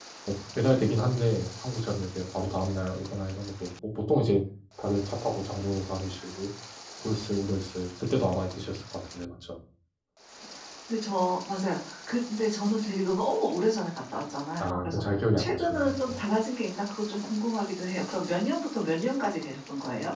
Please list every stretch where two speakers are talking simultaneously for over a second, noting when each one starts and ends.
14.6-16.2

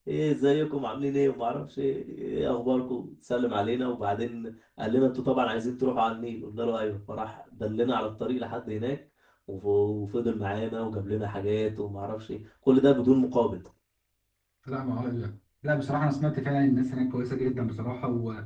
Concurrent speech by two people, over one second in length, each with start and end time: none

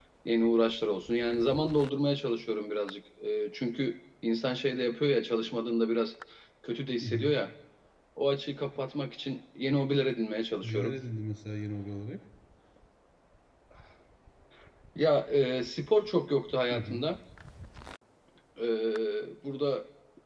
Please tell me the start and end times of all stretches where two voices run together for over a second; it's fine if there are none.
none

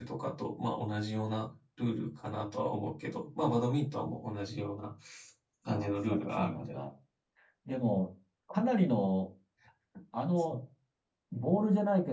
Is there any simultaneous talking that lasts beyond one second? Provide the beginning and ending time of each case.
5.6-6.8

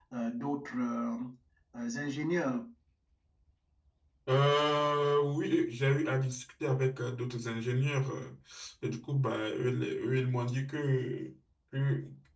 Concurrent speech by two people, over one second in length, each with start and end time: none

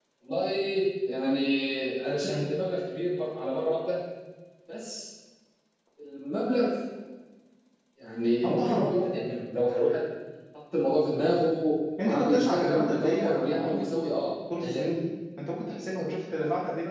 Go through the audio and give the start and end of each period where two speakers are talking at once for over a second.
12.1-13.8

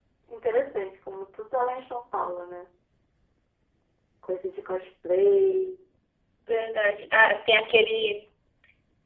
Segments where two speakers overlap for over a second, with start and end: none

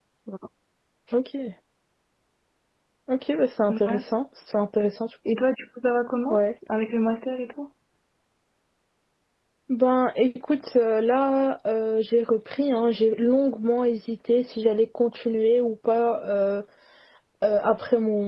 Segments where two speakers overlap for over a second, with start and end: none

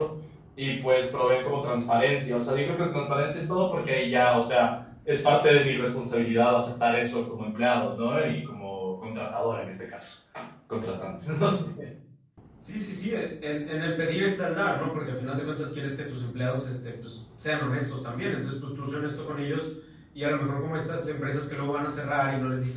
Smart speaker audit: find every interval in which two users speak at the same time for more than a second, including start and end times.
none

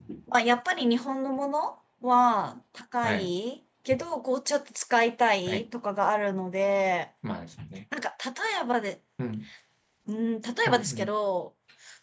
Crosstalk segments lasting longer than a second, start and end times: none

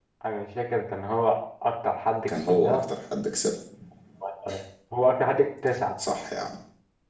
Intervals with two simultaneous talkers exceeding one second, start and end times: none

